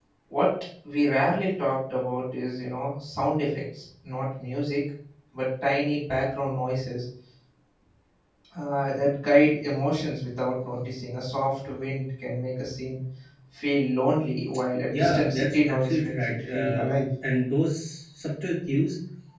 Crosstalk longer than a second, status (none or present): present